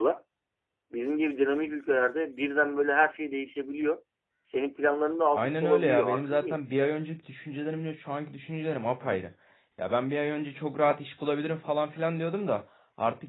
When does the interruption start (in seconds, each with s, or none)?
5.3 s